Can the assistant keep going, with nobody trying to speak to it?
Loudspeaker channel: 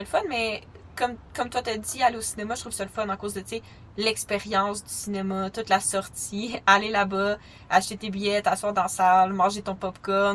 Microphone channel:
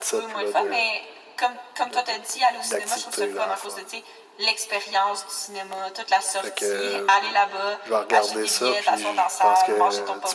No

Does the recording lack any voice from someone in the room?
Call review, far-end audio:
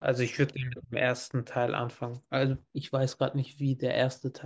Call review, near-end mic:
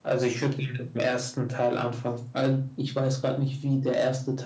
Yes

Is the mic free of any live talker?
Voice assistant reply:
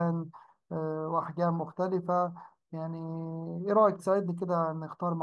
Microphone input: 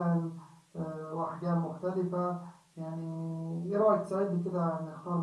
Yes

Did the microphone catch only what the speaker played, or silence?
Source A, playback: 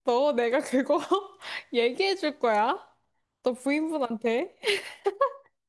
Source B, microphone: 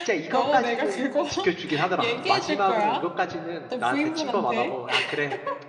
No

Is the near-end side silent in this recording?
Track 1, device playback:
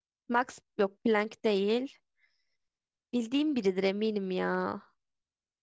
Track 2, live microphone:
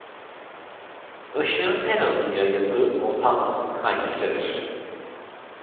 No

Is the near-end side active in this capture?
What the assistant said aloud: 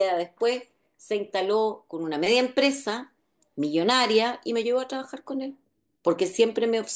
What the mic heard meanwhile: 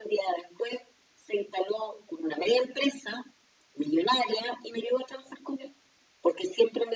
No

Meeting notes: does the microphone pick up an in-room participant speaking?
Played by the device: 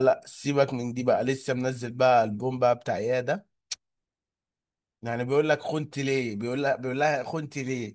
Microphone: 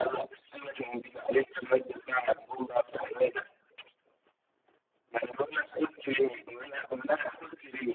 No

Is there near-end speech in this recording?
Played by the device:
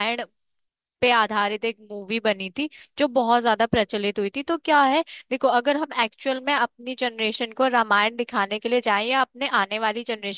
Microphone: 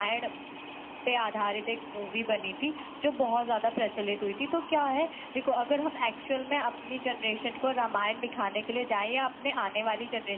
No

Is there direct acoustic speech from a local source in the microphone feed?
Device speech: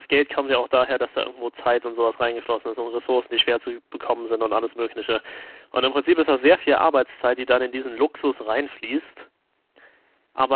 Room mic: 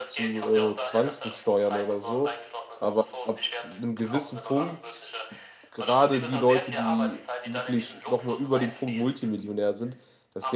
Yes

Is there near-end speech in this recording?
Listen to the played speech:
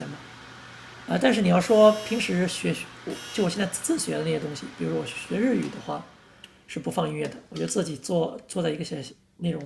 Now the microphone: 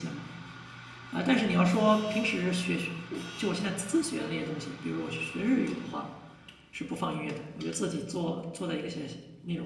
No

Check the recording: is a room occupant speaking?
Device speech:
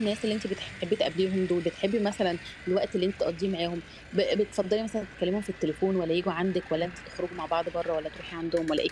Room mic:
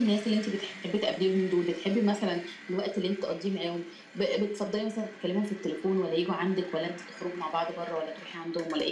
No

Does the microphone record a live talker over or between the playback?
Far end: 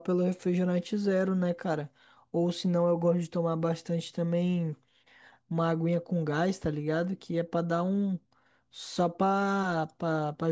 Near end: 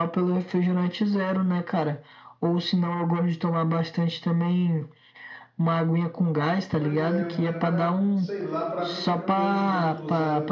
Yes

